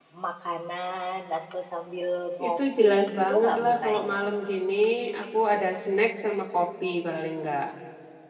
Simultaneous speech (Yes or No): Yes